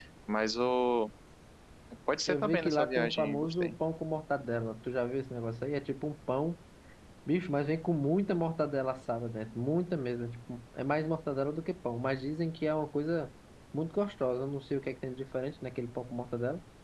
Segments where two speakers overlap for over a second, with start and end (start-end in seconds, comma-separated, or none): 2.3-3.7